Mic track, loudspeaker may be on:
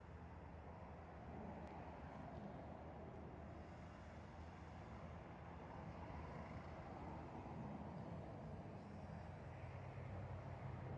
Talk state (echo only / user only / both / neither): neither